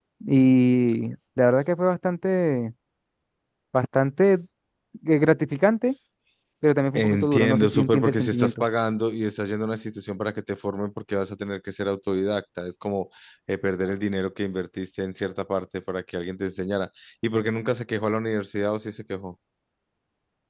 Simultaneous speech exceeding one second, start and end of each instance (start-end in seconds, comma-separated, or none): 6.9-8.5